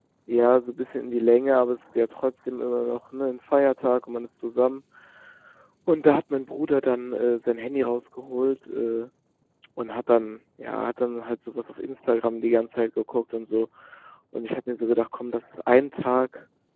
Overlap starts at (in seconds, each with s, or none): none